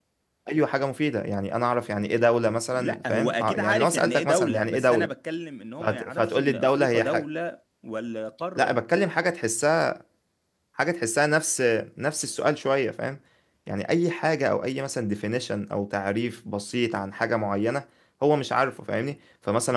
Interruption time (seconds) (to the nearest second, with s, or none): 3 s